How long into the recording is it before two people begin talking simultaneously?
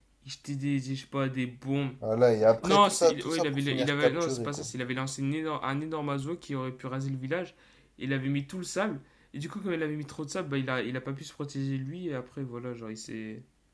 2.6 s

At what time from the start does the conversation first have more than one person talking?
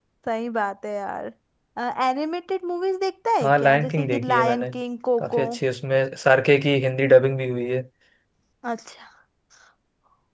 3.4 s

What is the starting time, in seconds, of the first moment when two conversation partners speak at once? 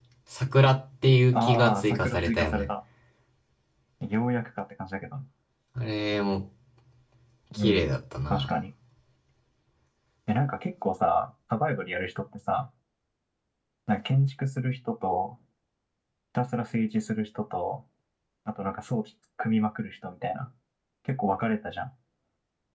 1.3 s

